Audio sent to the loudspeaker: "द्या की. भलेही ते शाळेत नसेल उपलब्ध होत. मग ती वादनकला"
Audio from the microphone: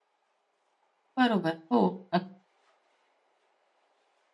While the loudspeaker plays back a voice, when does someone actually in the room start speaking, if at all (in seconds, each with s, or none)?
1.2 s